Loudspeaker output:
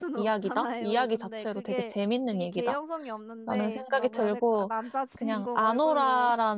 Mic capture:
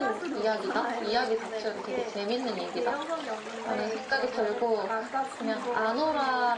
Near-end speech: none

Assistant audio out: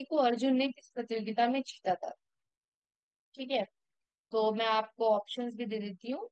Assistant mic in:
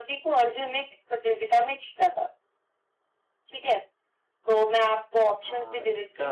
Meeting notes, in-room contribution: present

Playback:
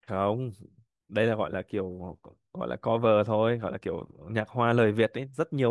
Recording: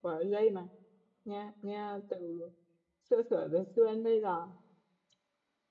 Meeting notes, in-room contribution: present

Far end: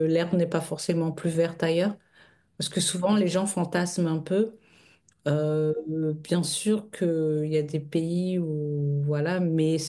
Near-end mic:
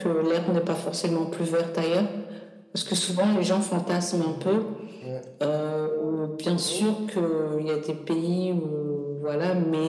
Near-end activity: present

